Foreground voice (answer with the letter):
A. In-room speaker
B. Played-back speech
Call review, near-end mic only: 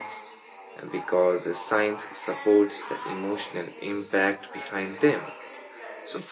A